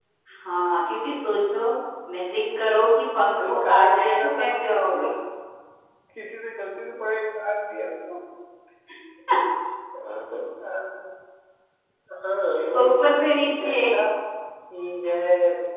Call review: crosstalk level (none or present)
present